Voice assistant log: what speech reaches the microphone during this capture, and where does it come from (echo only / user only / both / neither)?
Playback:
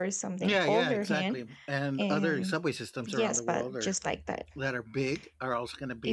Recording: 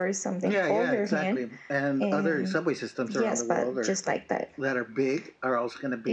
echo only